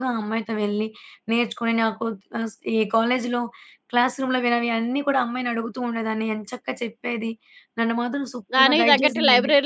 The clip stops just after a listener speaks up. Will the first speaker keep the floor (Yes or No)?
No